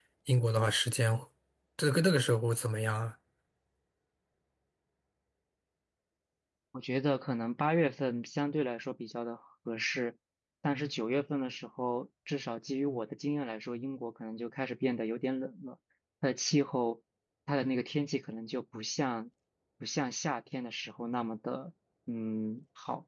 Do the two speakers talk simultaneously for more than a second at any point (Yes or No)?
No